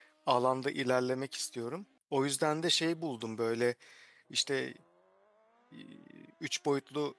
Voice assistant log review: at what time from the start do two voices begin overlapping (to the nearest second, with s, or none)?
none